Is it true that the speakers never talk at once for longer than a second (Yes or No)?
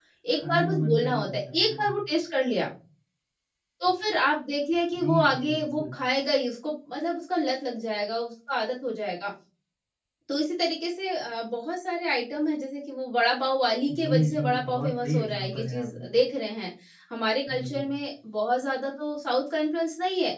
No